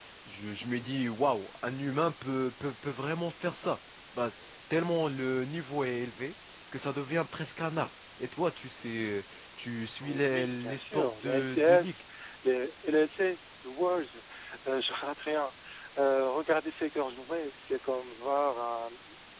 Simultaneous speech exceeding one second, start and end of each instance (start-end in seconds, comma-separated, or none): 10.0-11.9